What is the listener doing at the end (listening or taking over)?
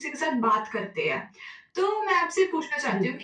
listening